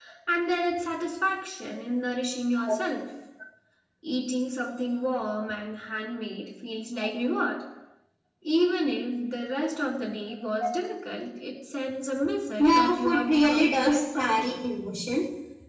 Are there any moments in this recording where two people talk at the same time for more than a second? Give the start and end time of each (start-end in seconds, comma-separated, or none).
12.6-14.3